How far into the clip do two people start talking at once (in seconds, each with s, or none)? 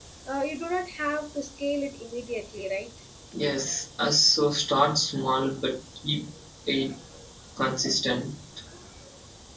none